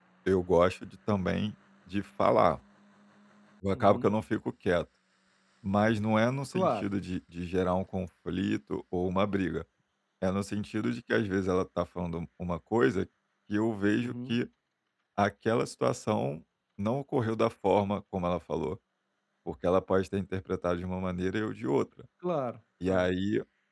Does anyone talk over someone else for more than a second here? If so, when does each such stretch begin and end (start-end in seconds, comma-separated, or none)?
none